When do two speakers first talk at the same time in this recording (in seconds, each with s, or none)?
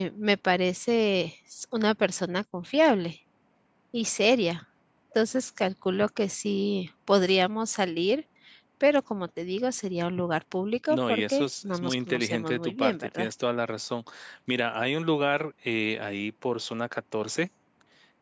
10.9 s